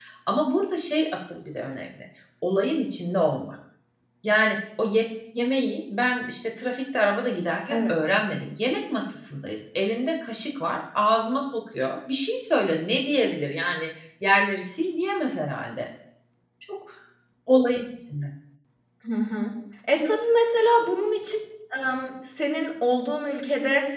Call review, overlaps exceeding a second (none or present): none